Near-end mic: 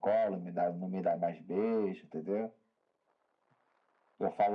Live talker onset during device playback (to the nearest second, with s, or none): none